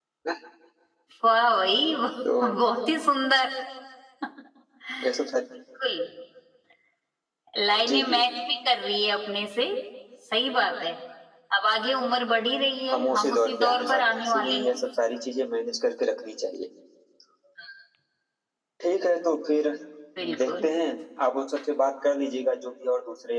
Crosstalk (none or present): present